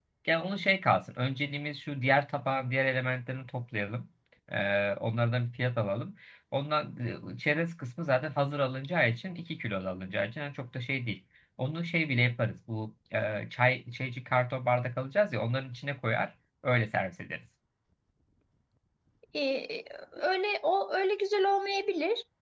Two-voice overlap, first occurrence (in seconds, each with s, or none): none